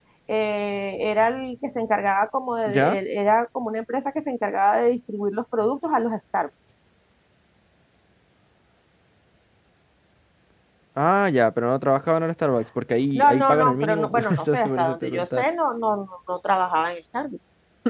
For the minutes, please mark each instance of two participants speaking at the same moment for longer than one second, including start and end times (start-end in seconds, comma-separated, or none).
13.2-15.4